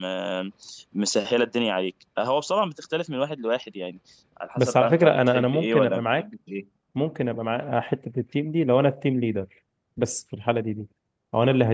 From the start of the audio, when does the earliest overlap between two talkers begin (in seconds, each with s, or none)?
4.6 s